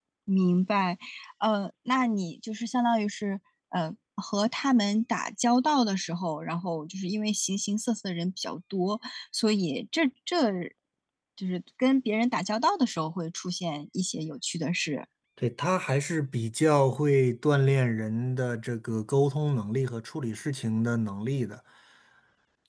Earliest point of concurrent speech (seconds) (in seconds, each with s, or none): none